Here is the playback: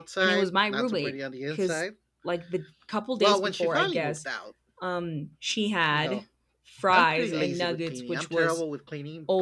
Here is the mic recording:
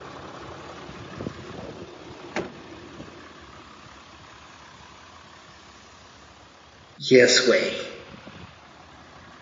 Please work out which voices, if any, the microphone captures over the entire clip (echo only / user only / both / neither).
user only